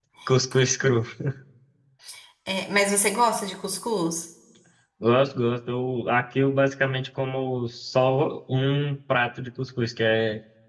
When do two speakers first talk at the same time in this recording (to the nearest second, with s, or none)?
none